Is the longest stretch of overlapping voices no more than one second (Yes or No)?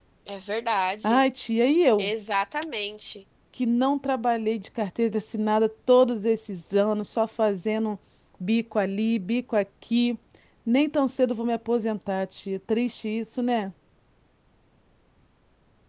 Yes